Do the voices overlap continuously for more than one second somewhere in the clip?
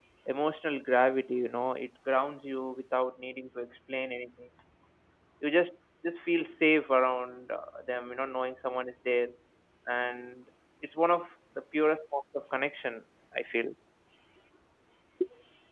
No

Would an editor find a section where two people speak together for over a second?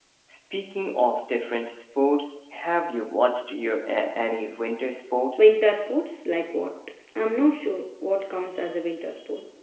No

